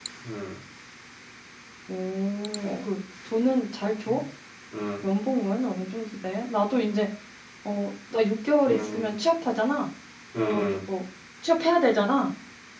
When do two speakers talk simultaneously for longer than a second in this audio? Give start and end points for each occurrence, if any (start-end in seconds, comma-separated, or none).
none